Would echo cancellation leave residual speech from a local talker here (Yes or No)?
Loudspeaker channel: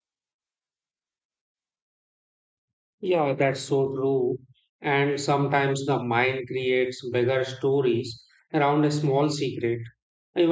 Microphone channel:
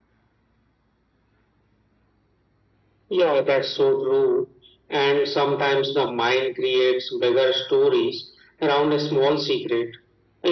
No